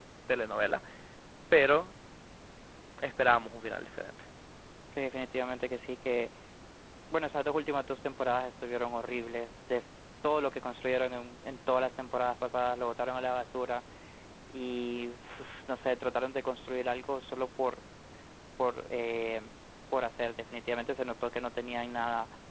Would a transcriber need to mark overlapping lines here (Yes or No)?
No